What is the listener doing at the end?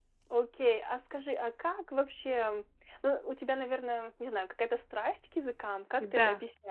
taking over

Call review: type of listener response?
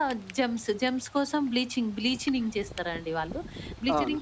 listening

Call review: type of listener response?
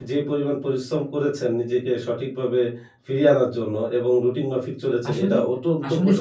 taking over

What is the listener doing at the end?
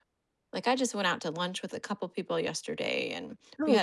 listening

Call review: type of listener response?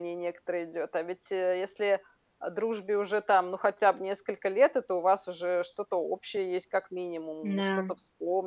listening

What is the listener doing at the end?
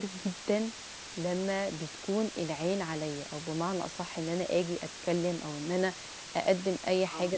listening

